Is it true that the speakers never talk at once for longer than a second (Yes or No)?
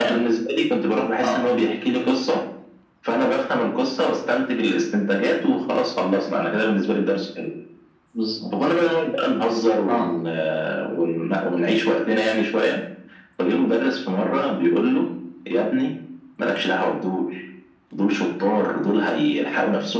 Yes